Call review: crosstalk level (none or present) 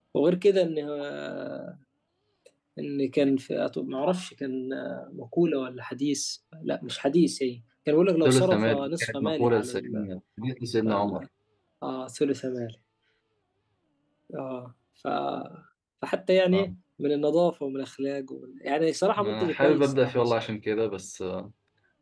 present